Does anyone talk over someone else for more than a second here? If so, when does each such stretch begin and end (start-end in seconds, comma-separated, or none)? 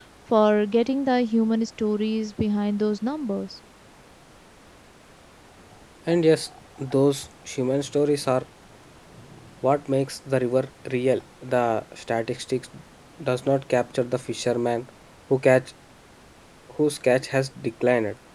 none